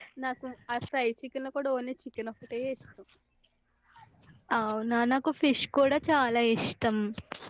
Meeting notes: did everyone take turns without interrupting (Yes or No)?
Yes